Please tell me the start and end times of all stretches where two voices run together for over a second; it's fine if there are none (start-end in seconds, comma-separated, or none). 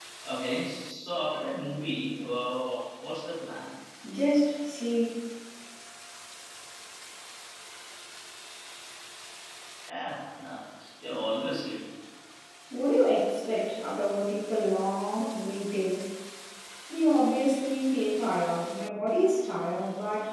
none